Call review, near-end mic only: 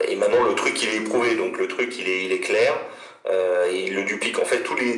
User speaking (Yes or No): No